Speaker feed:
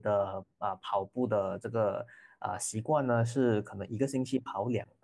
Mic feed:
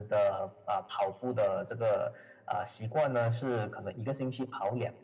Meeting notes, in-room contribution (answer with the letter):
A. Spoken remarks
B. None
B